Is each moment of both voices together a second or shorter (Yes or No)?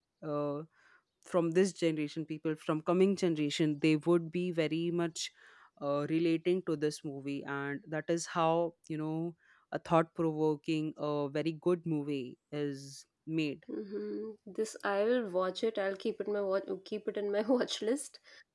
Yes